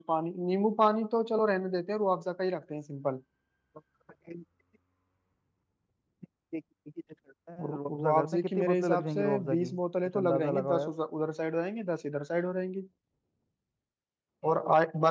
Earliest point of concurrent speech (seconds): 8 s

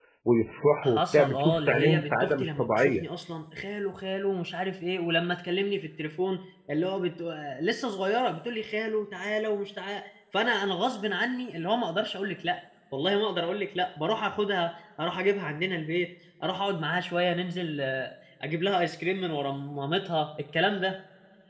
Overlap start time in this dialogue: 1 s

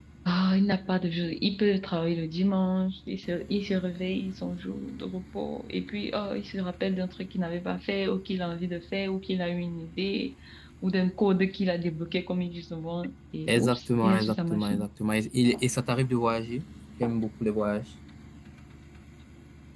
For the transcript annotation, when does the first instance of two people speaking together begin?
13 s

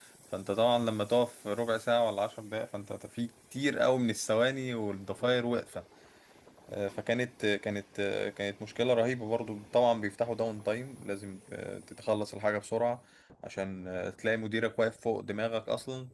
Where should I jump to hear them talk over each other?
none

